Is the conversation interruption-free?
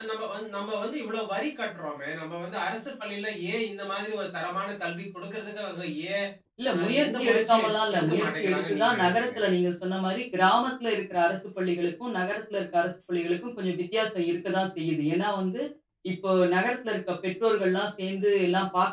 No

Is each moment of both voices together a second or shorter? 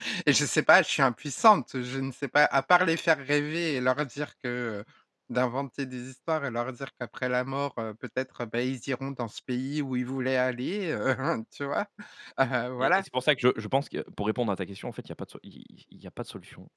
Yes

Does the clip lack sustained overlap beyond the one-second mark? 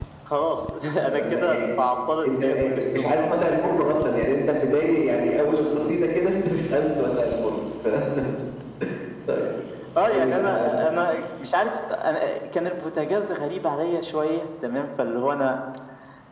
No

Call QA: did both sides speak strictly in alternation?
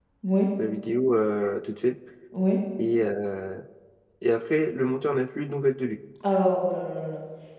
Yes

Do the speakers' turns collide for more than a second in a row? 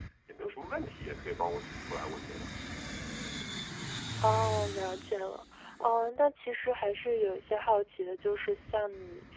No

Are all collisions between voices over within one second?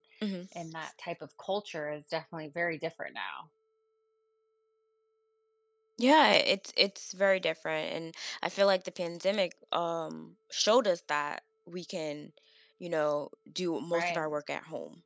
Yes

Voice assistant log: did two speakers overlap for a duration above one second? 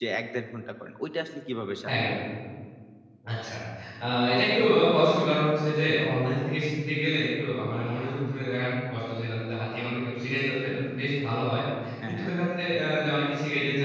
No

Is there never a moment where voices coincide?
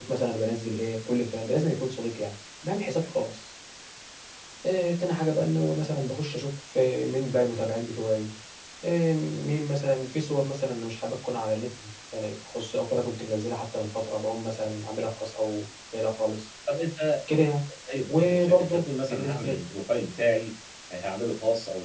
No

